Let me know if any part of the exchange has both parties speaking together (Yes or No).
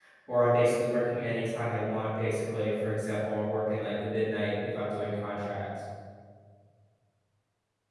No